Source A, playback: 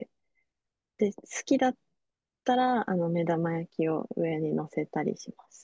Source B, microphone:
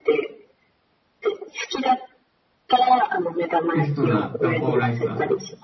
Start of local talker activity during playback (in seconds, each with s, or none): 3.7 s